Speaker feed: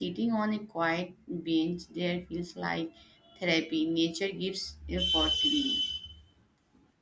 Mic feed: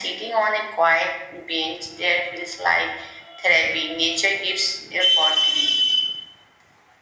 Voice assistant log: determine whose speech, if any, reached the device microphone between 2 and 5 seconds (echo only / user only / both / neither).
echo only